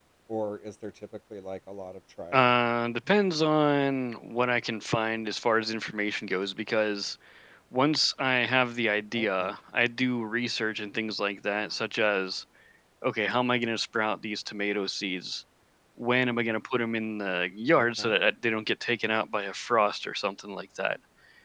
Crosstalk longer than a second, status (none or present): none